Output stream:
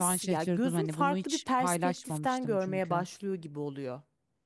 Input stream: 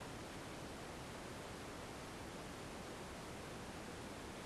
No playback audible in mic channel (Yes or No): Yes